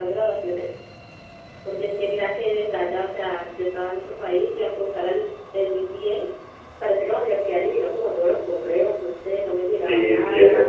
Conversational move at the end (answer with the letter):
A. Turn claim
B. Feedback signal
A